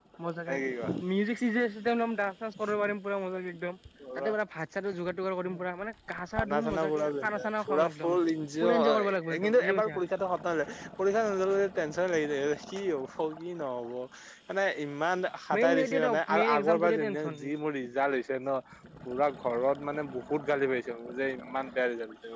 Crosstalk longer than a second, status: present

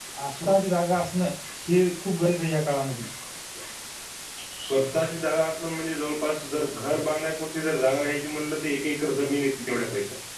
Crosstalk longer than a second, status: none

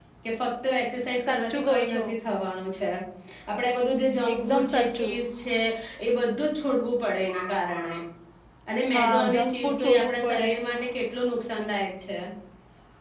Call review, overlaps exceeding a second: present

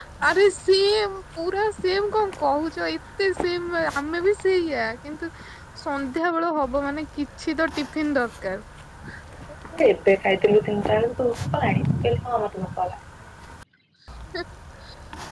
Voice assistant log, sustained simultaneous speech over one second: none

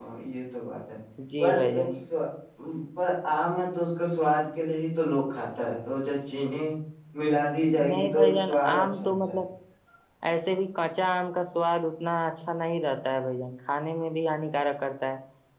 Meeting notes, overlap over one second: present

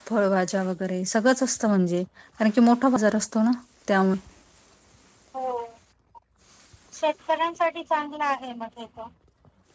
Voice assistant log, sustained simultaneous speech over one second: none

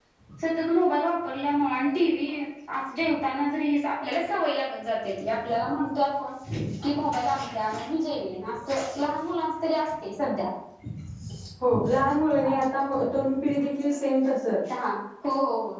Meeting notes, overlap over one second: none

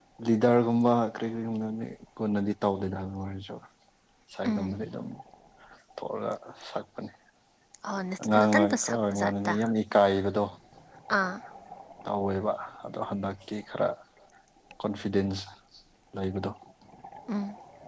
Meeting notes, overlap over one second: present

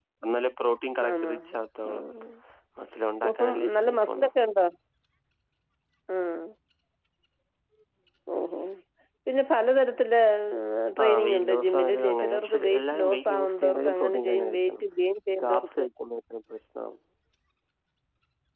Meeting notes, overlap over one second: present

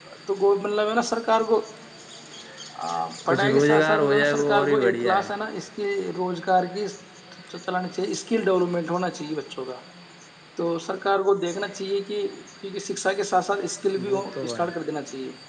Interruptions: present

